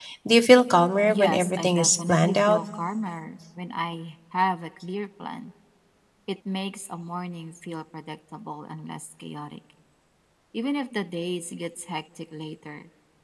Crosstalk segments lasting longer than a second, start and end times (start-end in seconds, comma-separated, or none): 1.1-2.6